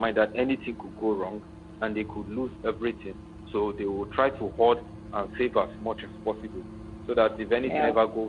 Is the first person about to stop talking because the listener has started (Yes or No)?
No